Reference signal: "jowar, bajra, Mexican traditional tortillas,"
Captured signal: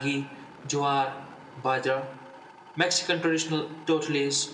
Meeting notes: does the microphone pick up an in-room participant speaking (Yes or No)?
No